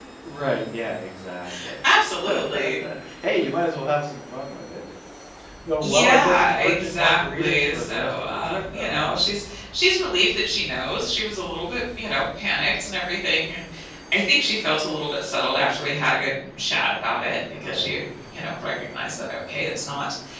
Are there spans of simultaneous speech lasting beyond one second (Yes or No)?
Yes